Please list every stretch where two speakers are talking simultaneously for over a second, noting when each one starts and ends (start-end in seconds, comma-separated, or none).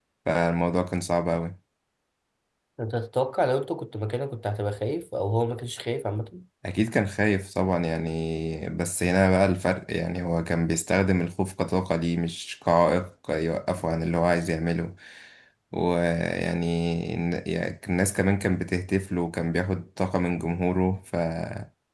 none